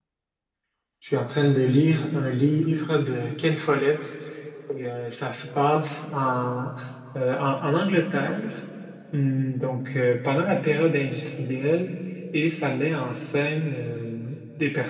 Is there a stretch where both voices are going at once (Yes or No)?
No